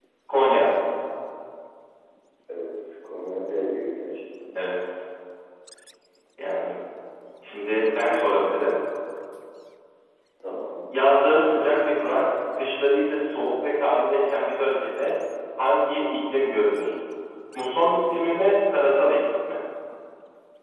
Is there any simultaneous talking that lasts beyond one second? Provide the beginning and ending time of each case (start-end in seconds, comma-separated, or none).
none